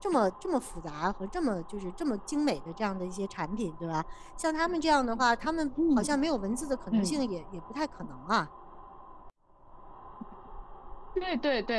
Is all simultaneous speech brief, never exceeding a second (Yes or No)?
Yes